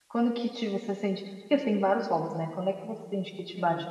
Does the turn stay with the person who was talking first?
Yes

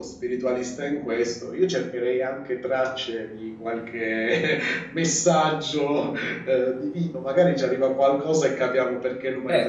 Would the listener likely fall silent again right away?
No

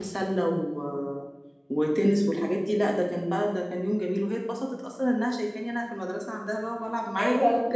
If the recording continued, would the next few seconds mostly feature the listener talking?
Yes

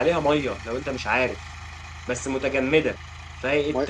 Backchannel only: No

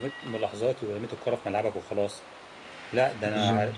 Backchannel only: Yes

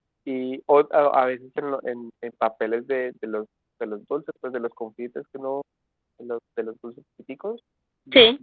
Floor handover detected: No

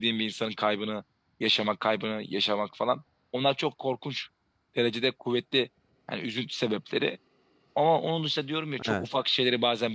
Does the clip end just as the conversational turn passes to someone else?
No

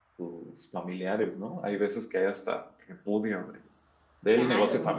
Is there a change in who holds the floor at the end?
No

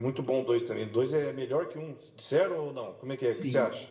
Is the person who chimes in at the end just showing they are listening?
No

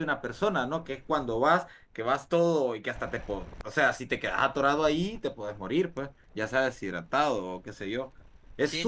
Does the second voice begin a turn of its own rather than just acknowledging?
Yes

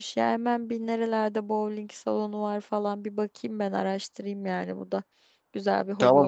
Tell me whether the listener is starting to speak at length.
Yes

